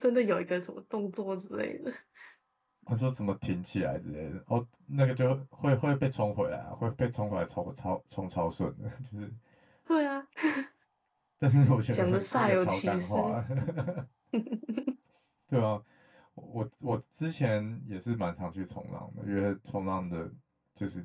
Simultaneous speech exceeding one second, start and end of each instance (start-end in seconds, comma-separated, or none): 11.9-13.4